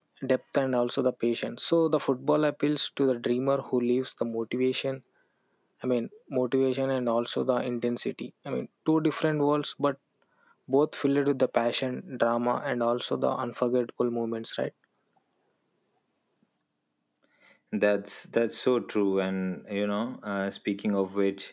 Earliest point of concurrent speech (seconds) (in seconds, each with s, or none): none